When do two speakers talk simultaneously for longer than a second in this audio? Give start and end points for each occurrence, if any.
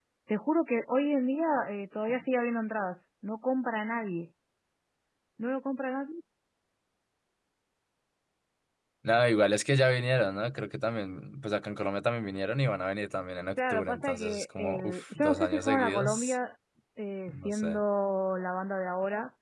13.7-16.4

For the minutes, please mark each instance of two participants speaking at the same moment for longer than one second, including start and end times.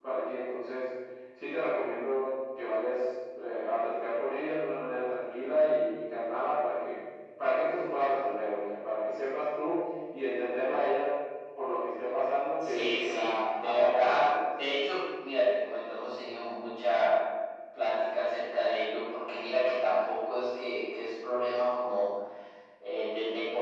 12.6-14.3

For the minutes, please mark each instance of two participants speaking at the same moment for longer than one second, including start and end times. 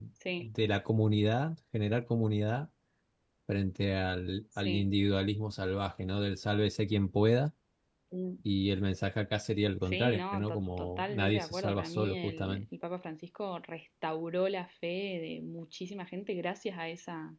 9.9-12.6

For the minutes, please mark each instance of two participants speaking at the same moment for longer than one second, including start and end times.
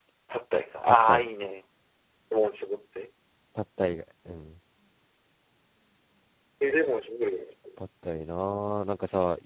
none

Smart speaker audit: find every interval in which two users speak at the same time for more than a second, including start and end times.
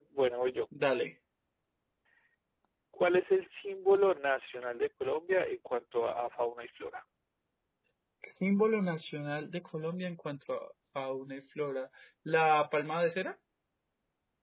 none

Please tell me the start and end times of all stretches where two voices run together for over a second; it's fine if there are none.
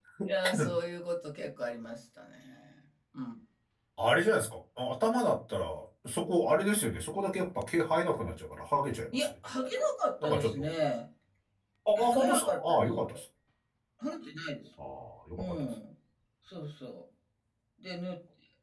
11.9-13.2

